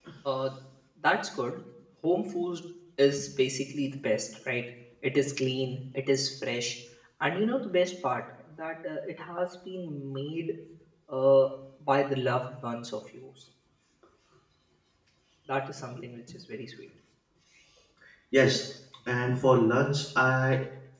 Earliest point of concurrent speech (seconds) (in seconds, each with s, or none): none